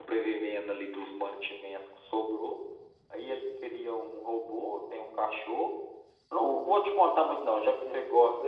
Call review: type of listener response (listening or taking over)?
listening